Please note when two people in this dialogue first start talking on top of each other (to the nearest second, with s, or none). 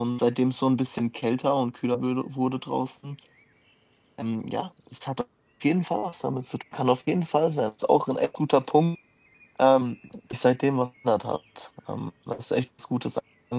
none